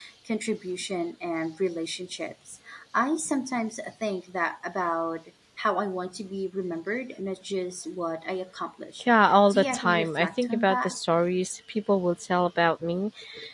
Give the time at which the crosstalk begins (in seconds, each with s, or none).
9.3 s